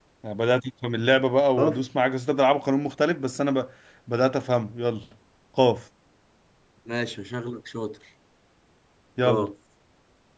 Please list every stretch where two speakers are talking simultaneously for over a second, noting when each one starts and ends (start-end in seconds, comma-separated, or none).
none